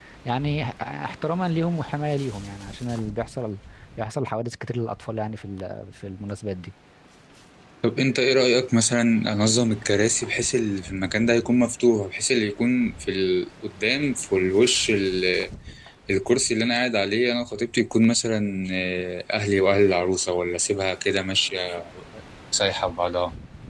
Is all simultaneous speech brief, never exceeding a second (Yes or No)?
Yes